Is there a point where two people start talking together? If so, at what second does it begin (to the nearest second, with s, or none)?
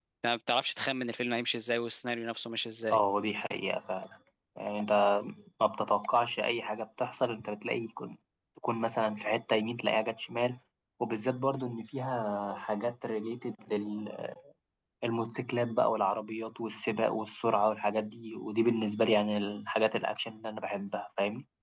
none